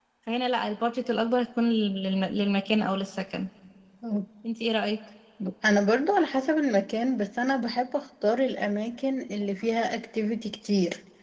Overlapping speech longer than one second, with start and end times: none

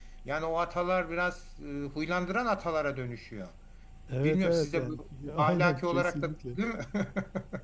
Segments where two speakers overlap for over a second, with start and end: 4.2-6.6

